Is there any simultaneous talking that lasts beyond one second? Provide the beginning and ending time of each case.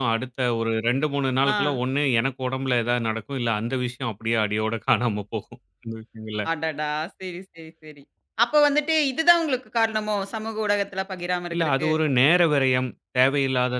none

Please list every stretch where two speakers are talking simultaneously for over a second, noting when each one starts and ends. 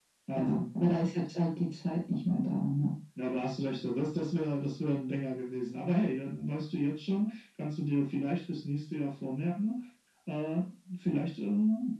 none

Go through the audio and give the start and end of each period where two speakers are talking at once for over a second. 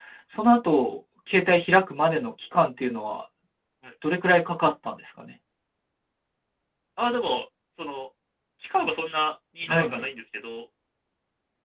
none

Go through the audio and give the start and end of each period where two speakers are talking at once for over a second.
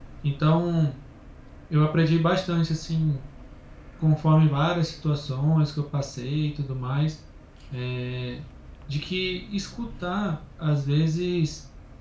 none

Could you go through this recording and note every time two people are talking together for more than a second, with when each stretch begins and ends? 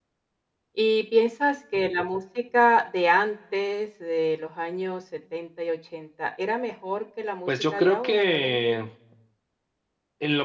7.5-8.8

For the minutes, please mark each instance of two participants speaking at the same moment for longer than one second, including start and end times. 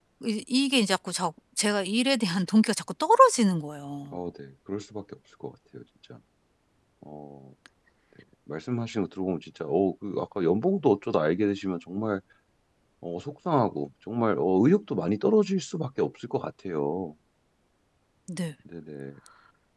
none

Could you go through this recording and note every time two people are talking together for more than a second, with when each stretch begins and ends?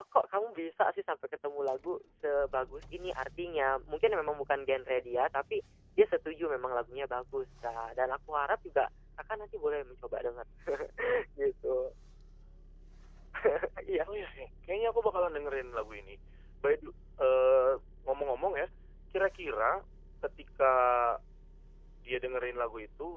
none

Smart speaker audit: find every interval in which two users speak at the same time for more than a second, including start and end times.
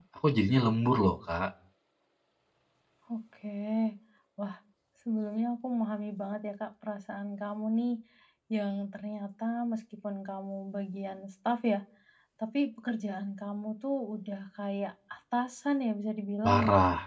none

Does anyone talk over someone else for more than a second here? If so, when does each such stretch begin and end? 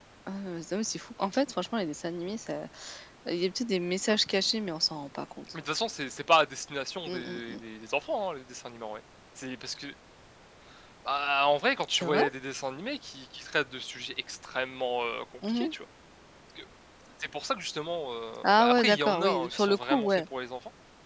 18.4-20.2

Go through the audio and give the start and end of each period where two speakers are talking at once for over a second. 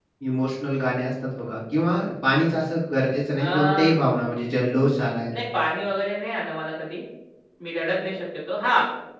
none

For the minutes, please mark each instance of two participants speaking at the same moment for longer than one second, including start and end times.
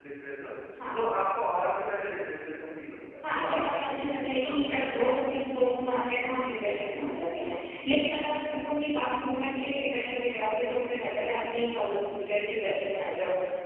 3.2-5.0

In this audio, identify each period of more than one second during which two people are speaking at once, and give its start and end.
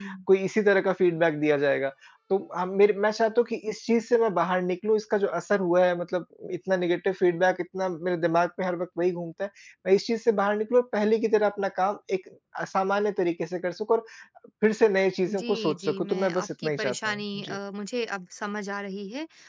15.3-17.6

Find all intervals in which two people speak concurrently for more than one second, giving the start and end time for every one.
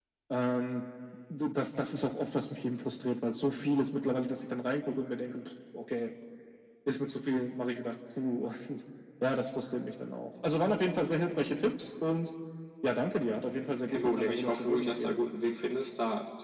13.9-15.2

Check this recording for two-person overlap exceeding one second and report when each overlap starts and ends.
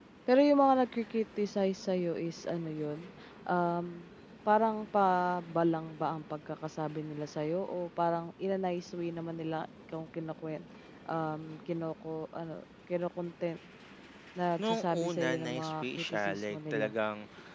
14.6-16.9

